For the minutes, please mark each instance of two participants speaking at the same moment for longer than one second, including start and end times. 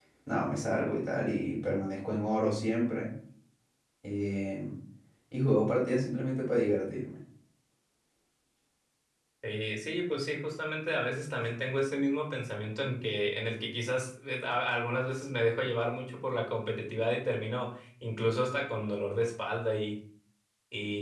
none

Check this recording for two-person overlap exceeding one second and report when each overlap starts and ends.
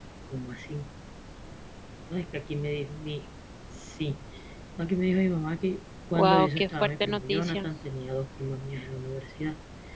6.1-7.7

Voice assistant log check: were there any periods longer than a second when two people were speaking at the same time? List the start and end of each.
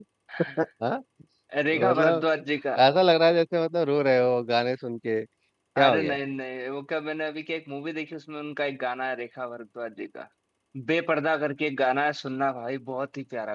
none

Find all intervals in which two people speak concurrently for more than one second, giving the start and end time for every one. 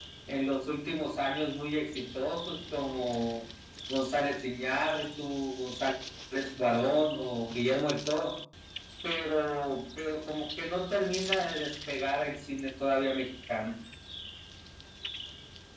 none

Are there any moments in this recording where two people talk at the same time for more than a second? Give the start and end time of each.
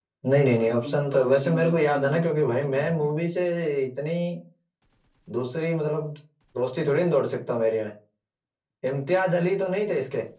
0.6-3.1

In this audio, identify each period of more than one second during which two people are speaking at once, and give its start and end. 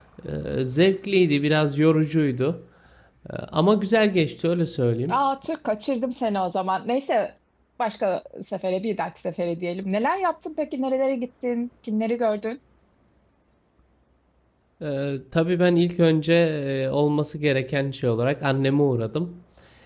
none

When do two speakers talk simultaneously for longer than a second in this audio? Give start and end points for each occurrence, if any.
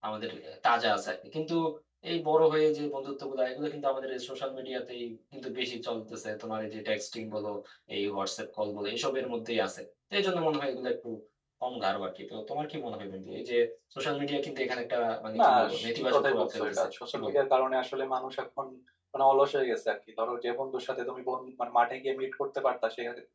15.4-17.3

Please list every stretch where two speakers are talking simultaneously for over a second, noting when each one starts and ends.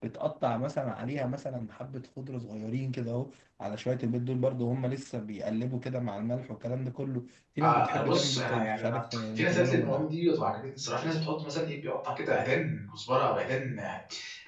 7.6-10.1

